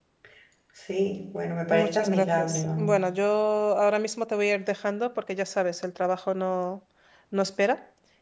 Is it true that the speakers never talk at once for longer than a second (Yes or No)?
No